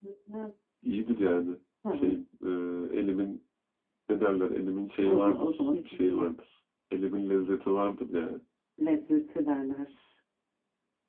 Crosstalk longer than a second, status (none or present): present